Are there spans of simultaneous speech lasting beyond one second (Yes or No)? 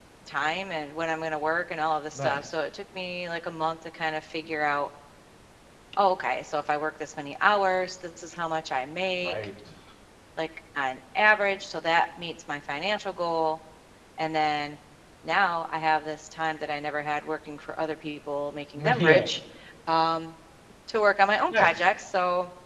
No